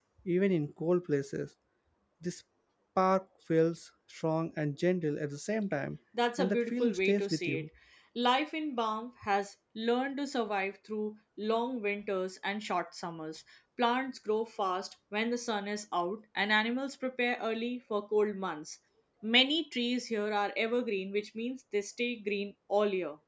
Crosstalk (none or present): present